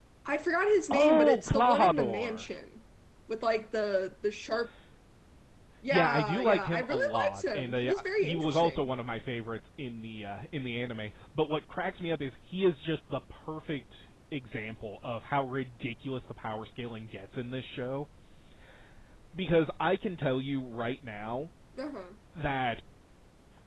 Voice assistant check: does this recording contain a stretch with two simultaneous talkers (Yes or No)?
Yes